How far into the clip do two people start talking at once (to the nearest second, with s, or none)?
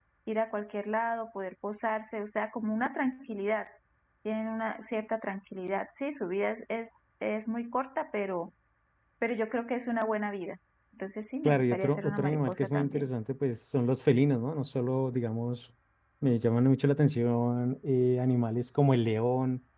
11 s